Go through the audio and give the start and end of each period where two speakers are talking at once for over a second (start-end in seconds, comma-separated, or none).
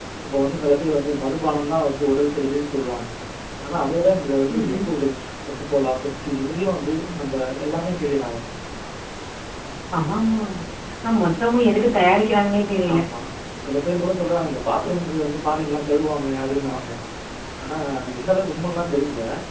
none